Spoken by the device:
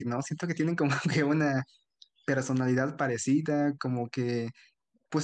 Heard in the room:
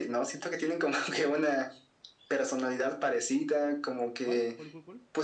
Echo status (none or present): present